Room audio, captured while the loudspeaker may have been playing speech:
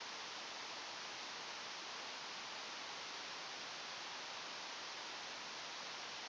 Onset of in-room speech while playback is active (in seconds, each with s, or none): none